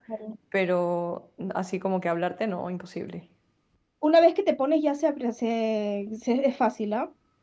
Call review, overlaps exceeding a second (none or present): none